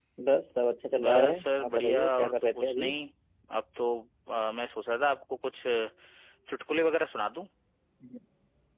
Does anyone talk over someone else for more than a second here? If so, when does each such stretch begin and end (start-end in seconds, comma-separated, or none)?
1.0-2.9